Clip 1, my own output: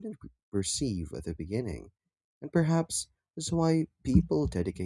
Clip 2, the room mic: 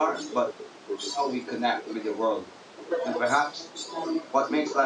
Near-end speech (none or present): present